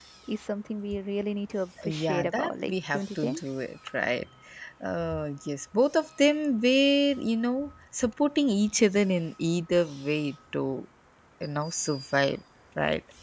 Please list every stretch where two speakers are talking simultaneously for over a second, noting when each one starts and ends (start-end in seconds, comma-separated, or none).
1.8-3.4